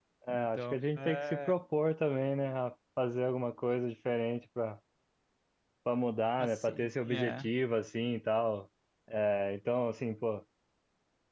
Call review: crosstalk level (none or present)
present